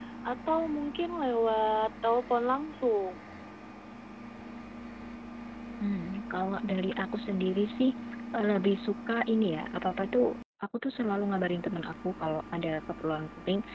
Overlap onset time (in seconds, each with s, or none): none